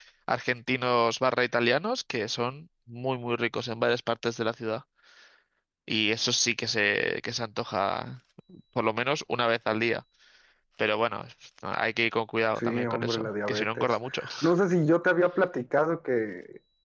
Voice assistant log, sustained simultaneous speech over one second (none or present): present